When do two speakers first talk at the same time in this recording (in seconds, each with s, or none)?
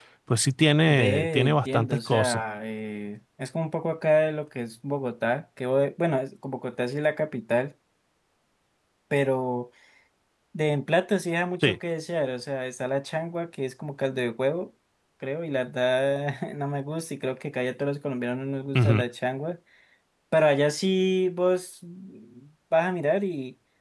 0.9 s